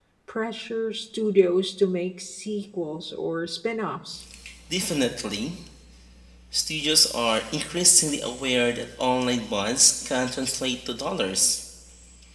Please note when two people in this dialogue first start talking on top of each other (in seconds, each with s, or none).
none